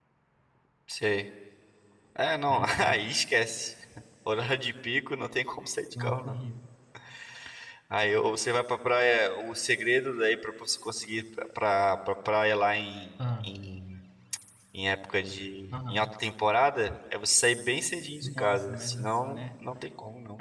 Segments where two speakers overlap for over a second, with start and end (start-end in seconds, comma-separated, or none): 18.2-19.5